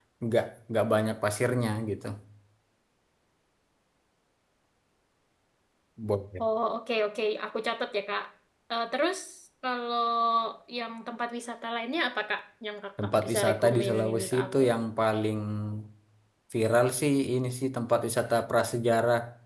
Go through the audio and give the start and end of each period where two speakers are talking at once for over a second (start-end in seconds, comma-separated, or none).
13.0-14.6